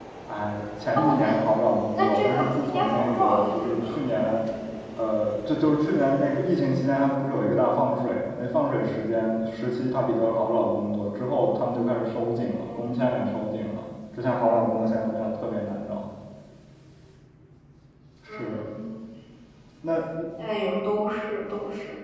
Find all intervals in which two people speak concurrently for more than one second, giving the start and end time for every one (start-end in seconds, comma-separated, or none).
1.9-4.0